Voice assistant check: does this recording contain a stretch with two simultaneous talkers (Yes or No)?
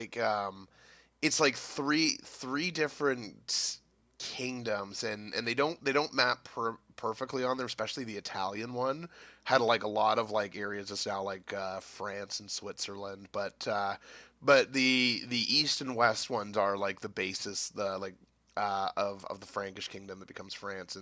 No